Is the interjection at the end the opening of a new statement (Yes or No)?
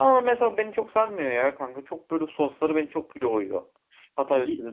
No